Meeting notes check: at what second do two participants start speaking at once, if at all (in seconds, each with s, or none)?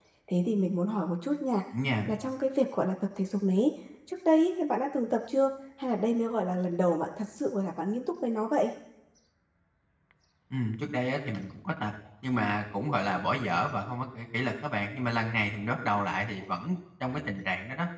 none